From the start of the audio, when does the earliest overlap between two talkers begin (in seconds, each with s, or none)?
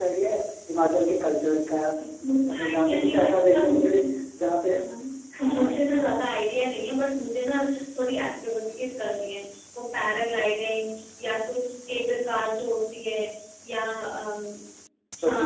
2.5 s